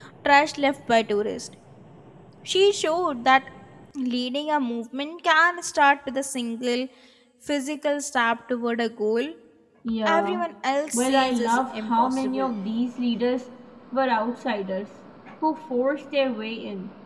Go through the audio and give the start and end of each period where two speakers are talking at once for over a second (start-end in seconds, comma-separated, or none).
10.9-12.5